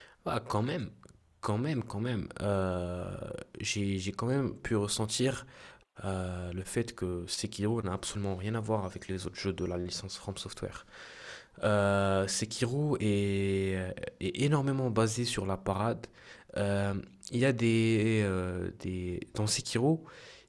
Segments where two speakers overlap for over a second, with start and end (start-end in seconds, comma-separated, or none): none